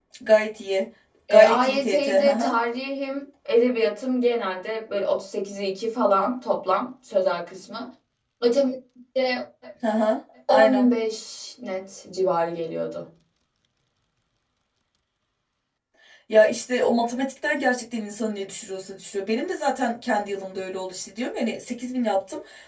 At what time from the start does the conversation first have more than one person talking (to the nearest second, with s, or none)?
1 s